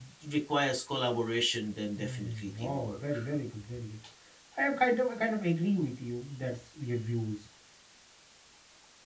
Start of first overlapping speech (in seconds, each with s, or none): 2.0 s